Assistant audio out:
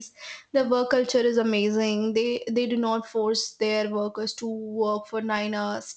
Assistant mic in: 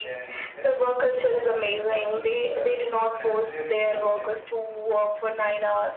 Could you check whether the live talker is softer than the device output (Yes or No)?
Yes